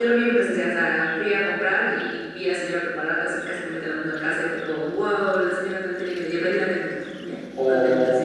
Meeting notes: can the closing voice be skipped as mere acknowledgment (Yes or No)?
No